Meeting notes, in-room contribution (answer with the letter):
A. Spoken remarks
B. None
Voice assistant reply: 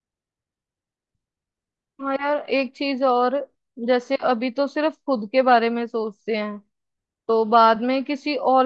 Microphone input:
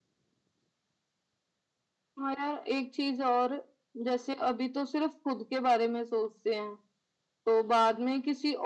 B